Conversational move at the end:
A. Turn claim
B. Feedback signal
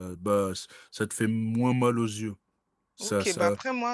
A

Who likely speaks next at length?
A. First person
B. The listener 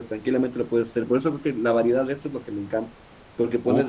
A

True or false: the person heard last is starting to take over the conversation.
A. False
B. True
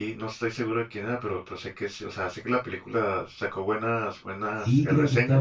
B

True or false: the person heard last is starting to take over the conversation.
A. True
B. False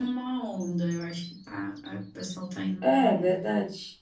A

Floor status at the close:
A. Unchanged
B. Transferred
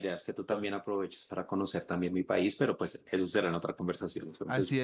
B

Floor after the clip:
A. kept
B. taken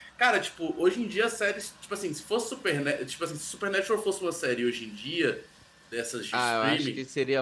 B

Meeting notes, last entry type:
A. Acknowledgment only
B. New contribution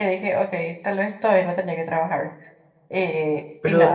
B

